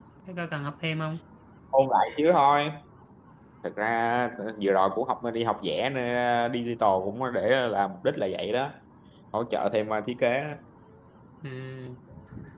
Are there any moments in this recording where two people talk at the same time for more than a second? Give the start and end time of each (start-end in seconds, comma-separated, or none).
none